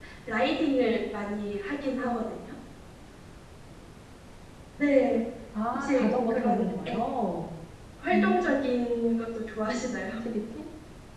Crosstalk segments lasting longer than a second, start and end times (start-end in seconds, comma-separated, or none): 5.7-7.0